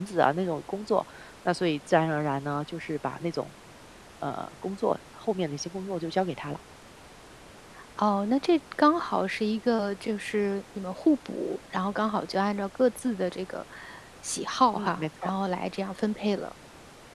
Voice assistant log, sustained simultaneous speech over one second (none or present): none